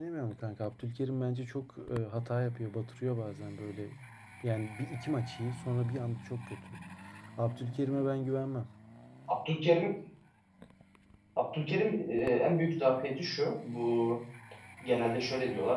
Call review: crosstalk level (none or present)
none